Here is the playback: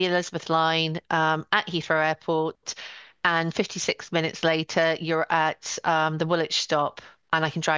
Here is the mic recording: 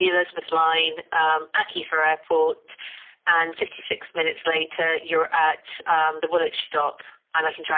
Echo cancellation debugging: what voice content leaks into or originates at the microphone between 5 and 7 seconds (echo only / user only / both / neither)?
echo only